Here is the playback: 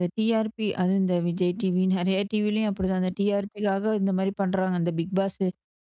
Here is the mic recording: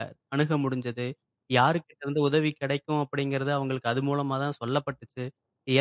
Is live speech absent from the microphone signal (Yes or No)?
No